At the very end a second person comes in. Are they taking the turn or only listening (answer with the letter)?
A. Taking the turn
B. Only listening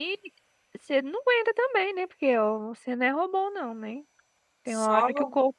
B